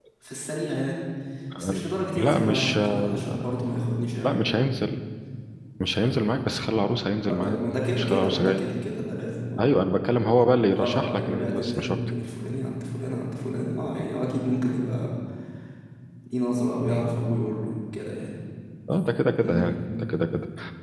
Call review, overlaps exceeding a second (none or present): present